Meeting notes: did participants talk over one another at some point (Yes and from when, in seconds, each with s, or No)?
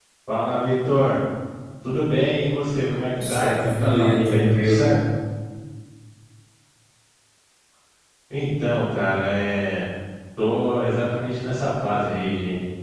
Yes, from 3.1 s